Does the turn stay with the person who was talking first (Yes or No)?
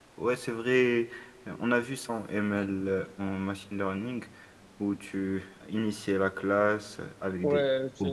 No